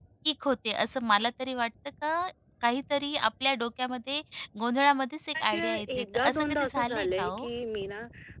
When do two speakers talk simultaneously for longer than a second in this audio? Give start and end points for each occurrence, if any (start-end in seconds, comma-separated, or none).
5.5-7.5